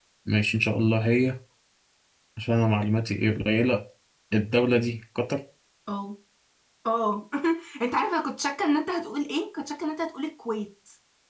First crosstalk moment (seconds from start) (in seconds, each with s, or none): none